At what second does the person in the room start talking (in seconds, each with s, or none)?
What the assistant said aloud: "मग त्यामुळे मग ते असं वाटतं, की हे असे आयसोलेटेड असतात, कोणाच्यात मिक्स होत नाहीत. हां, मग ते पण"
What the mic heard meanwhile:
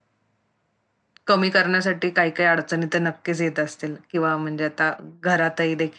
1.3 s